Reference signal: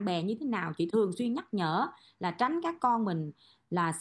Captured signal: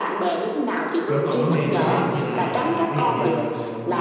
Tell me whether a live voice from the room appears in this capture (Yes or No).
Yes